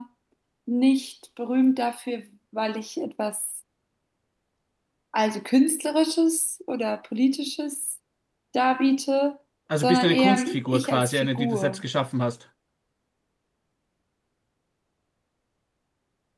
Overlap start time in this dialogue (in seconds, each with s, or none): 9.7 s